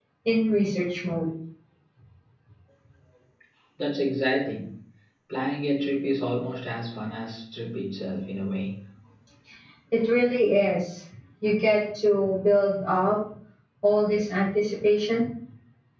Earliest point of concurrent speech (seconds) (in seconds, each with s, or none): none